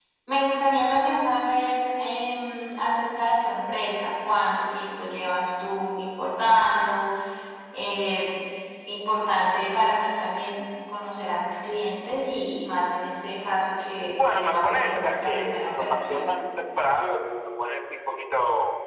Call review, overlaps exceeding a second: present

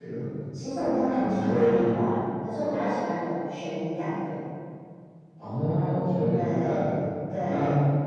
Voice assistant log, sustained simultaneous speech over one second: present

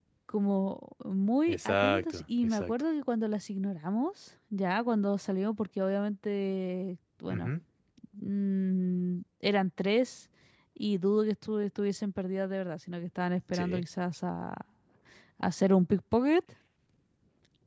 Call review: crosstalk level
present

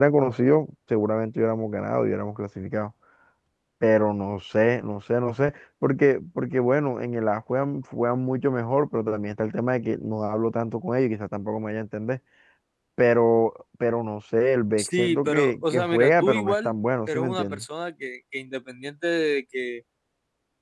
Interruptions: present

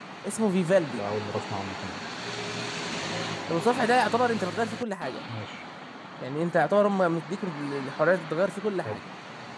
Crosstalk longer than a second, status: none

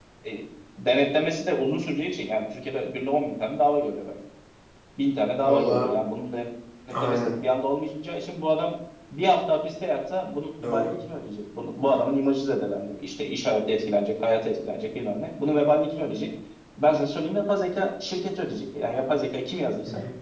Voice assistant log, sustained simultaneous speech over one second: none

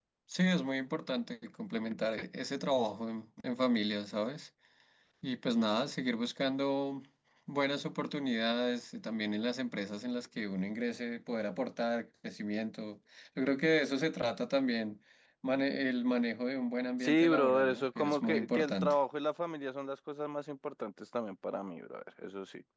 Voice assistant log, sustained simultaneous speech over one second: present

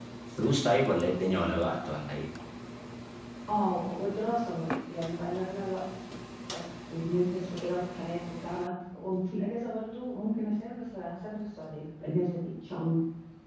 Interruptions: none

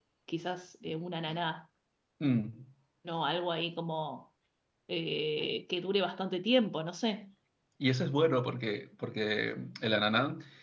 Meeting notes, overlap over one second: none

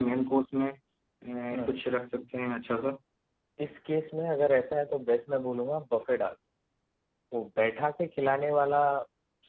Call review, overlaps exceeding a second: none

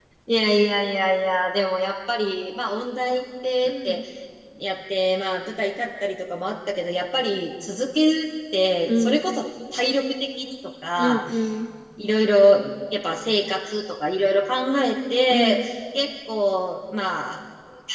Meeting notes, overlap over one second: none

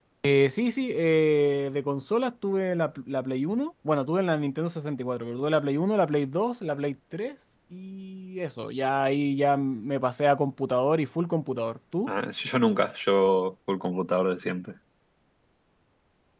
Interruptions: none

